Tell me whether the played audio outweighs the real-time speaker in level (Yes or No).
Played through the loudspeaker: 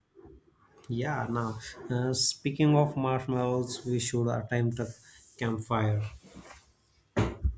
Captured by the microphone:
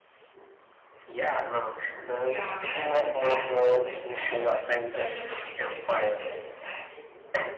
Yes